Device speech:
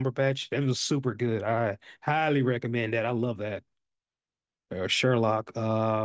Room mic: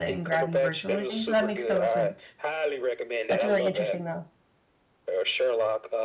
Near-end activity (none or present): present